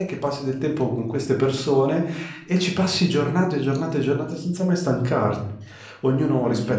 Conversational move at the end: listening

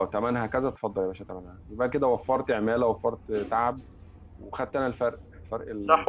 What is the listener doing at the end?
taking over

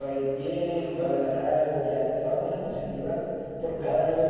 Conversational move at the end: listening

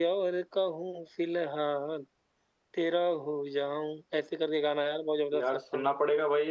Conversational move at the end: taking over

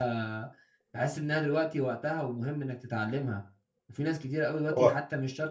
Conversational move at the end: listening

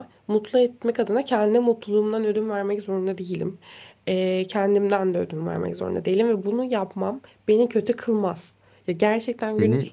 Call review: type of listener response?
listening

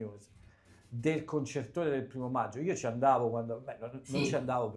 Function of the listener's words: listening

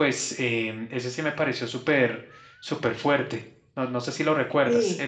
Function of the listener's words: taking over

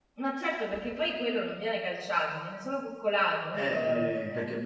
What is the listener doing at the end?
taking over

